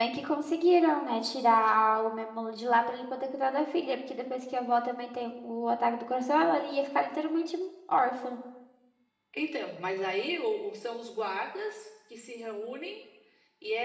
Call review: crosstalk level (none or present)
none